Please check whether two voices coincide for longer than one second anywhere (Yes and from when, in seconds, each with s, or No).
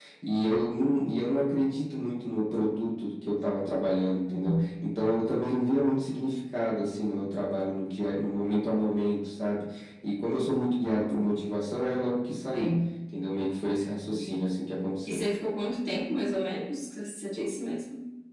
No